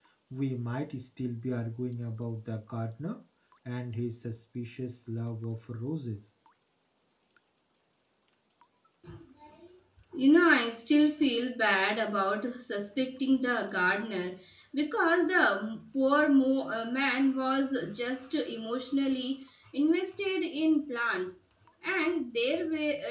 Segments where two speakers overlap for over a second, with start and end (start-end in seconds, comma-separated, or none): none